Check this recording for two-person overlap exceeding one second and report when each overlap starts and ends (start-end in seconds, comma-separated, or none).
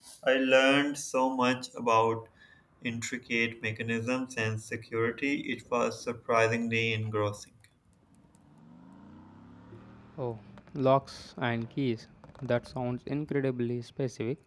none